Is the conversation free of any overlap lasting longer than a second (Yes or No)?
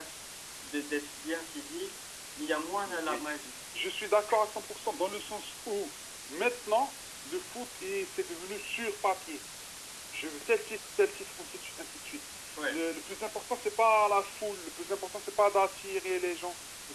Yes